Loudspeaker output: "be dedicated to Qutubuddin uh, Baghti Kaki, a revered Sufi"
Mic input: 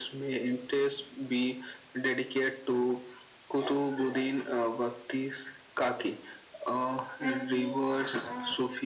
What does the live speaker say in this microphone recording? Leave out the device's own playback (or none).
and the uh,